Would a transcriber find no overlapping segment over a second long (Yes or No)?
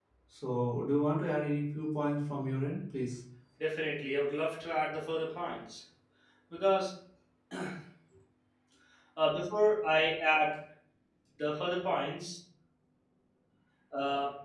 Yes